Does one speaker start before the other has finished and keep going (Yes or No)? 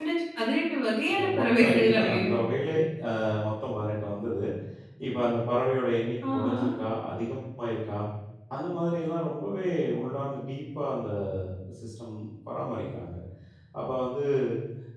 Yes